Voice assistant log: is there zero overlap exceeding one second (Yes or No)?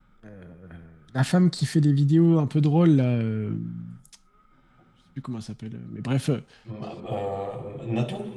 Yes